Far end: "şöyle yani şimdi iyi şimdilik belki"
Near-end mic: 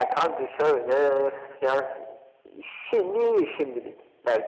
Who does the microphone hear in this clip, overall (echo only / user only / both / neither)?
echo only